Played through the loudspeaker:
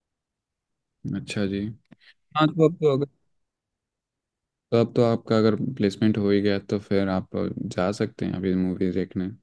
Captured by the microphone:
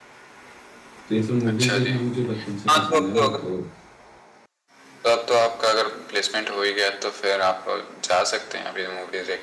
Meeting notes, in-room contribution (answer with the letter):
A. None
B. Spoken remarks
B